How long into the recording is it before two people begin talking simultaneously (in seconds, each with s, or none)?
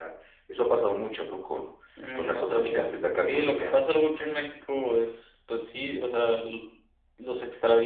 2.1 s